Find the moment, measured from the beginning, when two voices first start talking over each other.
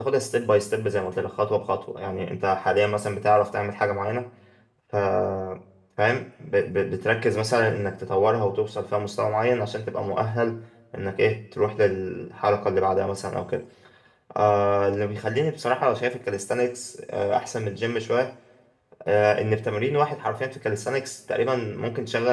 none

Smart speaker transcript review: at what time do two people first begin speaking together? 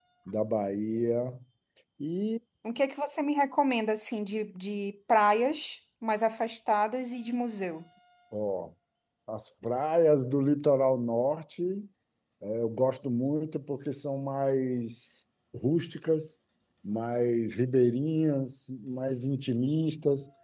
none

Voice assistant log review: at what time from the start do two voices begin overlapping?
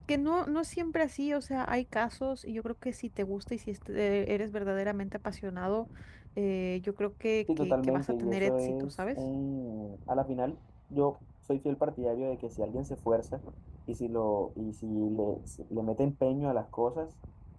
7.5 s

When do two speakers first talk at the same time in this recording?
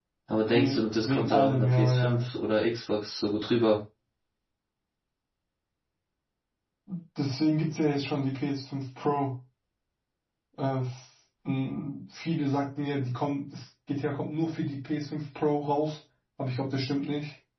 0.5 s

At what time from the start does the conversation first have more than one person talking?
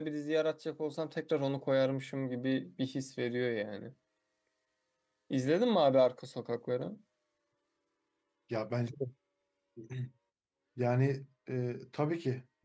none

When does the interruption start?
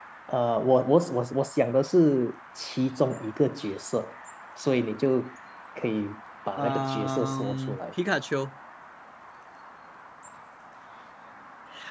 6.6 s

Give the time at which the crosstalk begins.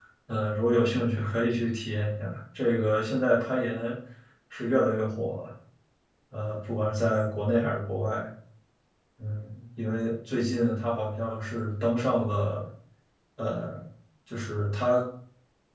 none

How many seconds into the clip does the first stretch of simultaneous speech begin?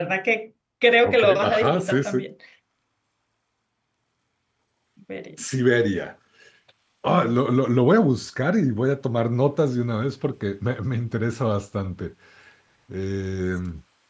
1.1 s

